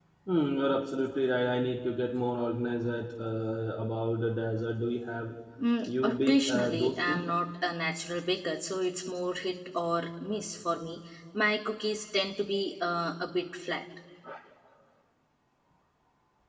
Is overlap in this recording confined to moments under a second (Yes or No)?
No